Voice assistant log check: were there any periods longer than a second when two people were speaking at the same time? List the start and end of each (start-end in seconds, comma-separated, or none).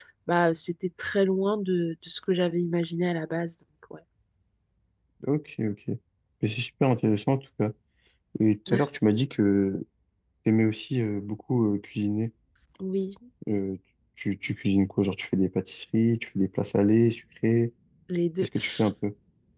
none